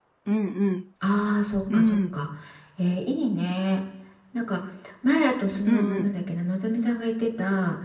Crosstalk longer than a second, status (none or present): none